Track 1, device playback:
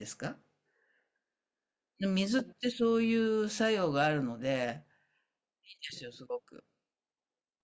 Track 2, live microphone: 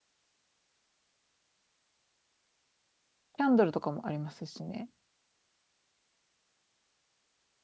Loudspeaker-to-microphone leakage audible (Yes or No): No